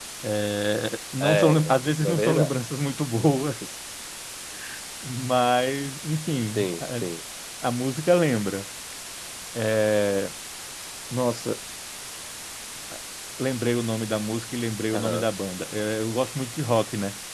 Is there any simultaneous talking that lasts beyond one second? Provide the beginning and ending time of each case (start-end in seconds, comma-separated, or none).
1.2-2.6